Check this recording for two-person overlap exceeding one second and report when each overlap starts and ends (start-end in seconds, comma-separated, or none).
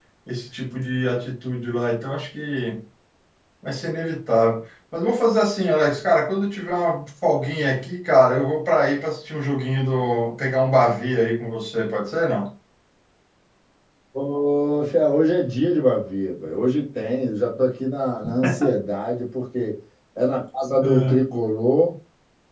none